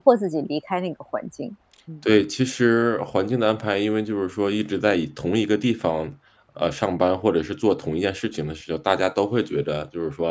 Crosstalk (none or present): none